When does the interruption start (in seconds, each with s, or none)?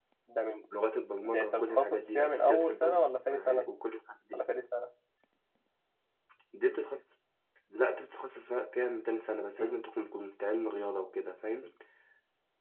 1.2 s